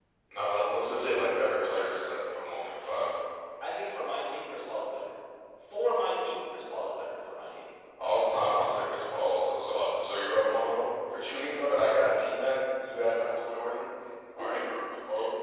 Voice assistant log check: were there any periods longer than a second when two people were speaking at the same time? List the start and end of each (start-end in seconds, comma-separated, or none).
none